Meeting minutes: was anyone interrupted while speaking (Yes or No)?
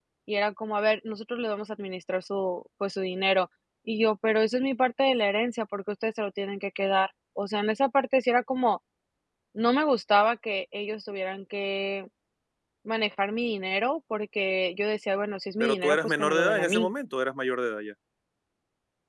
Yes